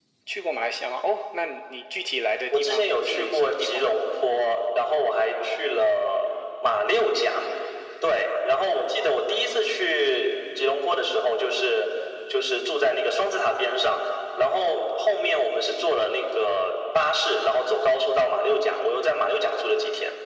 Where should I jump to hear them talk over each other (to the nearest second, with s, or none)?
3 s